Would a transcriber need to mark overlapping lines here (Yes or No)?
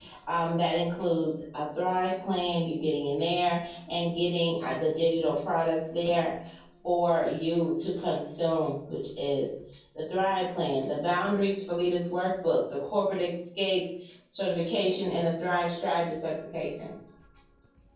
No